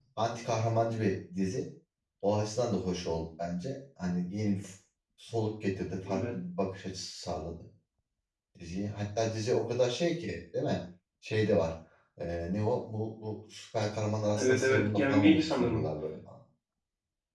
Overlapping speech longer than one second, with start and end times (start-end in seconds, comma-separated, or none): 14.4-15.8